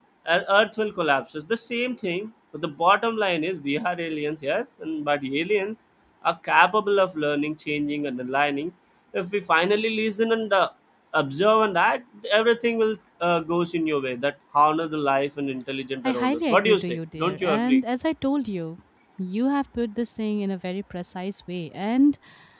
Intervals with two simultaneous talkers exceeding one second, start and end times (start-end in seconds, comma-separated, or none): 16.0-17.8